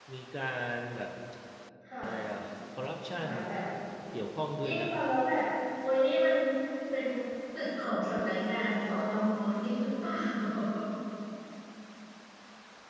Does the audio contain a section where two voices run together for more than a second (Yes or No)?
No